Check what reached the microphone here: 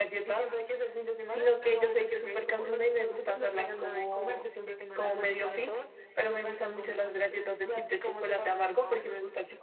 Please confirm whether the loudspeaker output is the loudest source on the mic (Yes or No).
No